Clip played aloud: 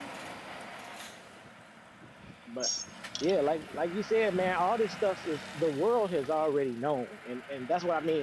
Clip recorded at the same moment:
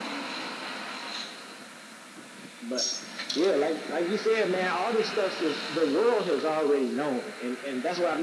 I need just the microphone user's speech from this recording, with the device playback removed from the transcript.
none

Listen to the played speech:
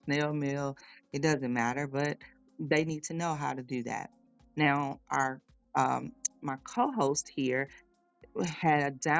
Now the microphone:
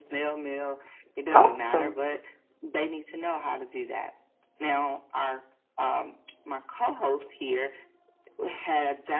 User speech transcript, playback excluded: awesome

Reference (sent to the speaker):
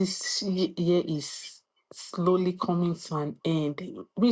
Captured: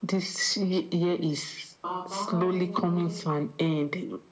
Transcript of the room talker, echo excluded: Baba,

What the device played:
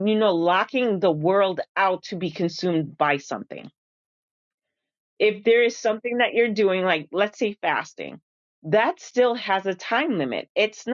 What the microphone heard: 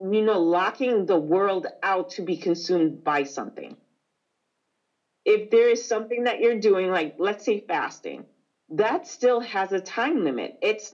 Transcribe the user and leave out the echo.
none

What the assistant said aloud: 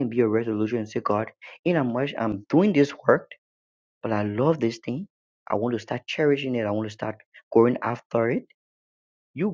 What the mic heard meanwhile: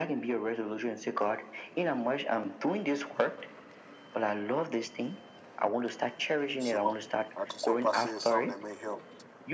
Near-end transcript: So I just hope I said something that may help.

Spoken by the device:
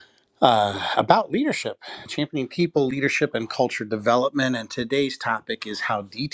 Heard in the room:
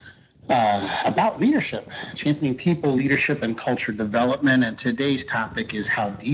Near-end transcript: none

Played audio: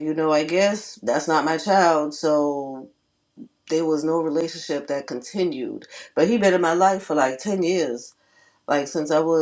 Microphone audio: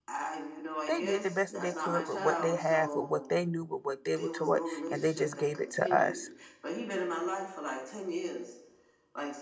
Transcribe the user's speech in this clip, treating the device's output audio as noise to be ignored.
they did the best that they could with what they have, with what they knew, with what they were taught, and they just gave it to us.

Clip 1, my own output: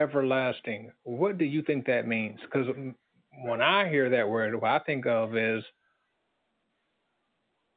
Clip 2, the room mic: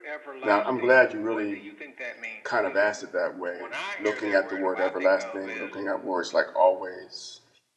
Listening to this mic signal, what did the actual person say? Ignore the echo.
Now, I'm glad you really kind of asked it that way, looking at the word everlasting, looking at words like always.

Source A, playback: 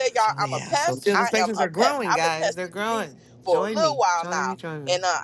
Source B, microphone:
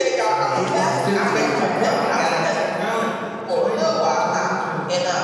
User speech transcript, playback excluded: Thir- last Thursday we weren't,

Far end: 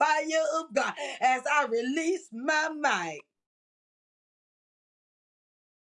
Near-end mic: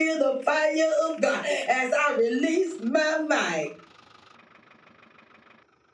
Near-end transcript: none

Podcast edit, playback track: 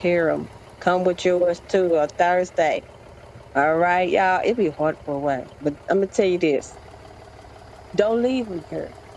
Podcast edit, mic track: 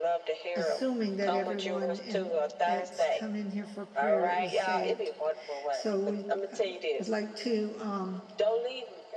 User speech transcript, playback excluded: assuming that everyone in that's come in here for prayer is saved. So we uh, I'd like to um,

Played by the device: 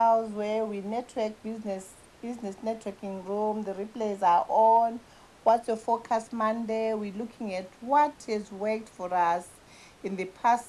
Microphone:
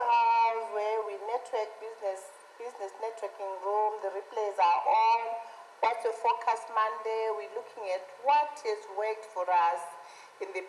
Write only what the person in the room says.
none

